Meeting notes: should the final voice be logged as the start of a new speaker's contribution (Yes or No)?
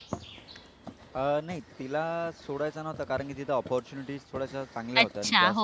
Yes